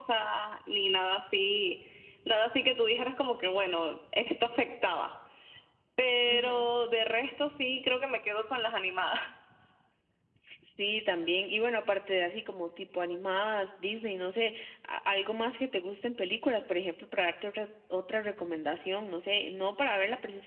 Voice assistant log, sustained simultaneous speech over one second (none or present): none